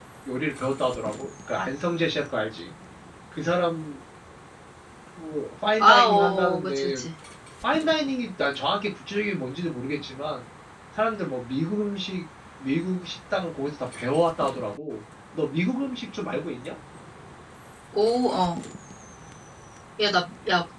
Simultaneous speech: Yes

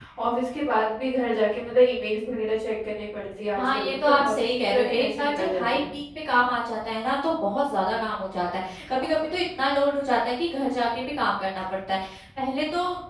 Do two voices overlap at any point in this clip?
Yes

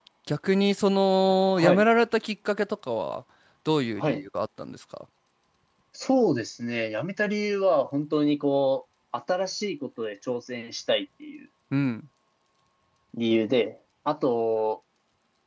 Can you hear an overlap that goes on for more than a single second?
No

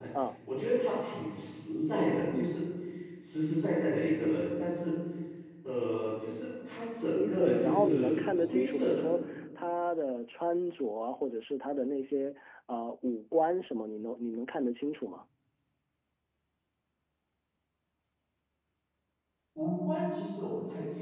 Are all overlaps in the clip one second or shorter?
No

